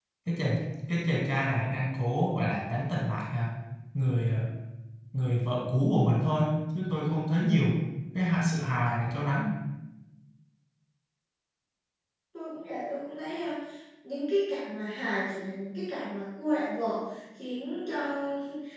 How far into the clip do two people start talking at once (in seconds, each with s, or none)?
none